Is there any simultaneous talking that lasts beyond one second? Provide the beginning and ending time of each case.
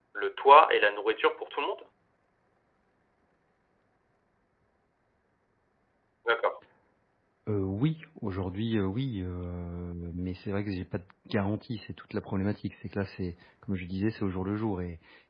none

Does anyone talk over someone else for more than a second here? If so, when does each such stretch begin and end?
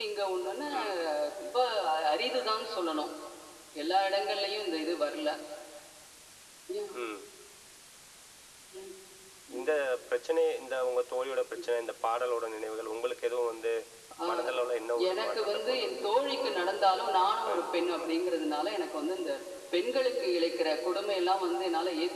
15.1-18.1

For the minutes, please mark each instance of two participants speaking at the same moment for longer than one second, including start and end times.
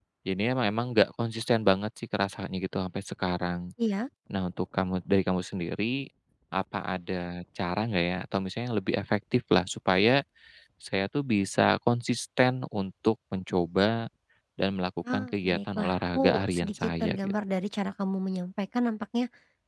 15.1-17.2

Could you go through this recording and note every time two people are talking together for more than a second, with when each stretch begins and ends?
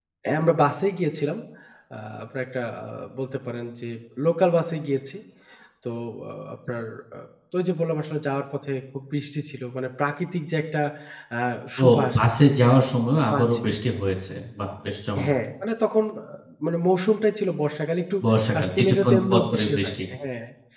18.6-19.9

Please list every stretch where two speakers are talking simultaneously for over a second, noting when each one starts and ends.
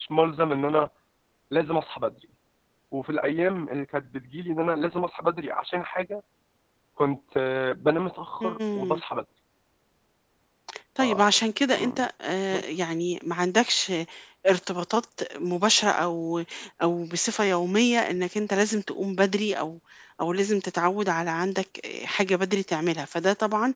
none

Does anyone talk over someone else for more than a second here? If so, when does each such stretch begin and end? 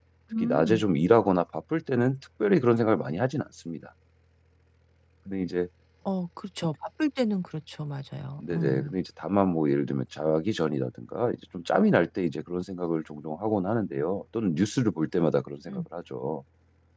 none

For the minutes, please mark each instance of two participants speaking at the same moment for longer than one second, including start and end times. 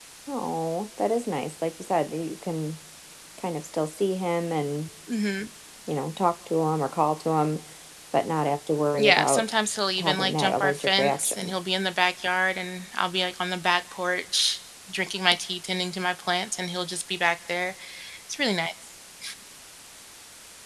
10.0-11.5

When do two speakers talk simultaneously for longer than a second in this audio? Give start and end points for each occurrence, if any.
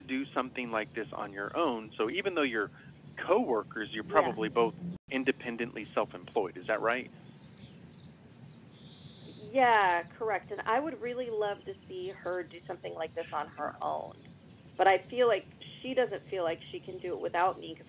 none

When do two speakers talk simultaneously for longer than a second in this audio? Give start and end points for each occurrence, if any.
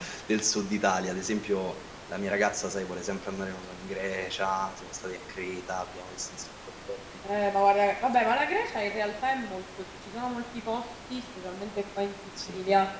none

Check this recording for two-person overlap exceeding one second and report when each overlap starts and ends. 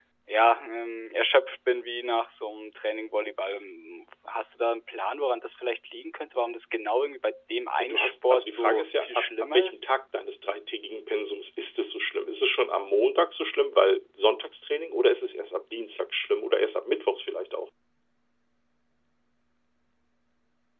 7.8-9.8

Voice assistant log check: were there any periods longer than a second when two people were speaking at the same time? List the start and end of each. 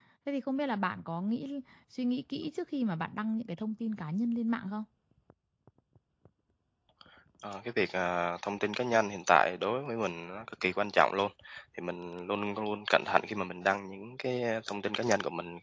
none

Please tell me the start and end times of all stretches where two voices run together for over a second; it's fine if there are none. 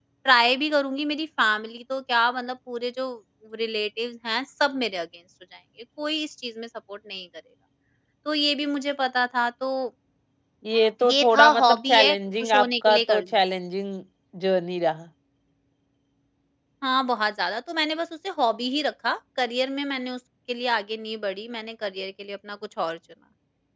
11.1-13.2

